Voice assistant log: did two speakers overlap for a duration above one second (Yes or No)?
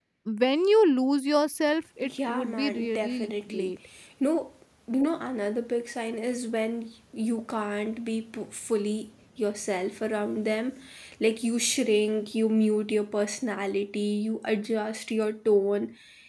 Yes